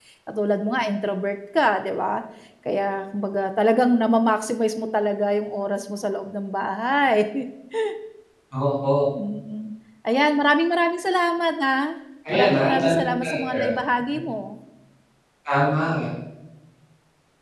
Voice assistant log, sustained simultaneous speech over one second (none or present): present